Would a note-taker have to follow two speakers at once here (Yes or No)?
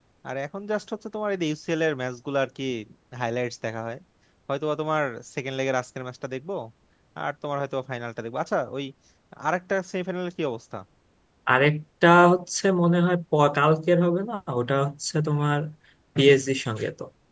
No